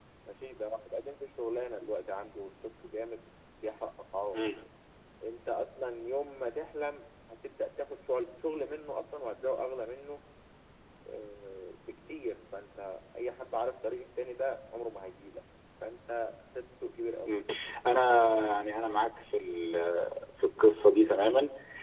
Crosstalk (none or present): none